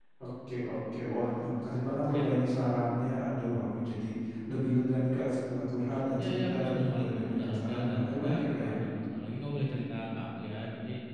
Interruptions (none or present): present